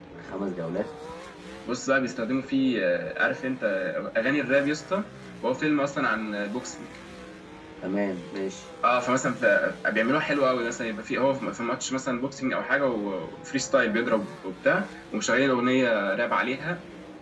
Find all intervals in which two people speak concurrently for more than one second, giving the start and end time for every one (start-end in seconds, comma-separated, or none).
none